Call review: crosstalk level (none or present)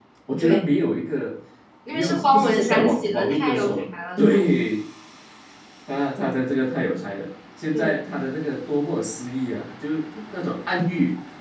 present